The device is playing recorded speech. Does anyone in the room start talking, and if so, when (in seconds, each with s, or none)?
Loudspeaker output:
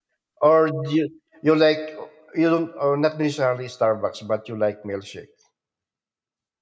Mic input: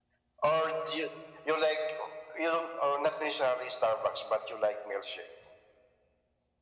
none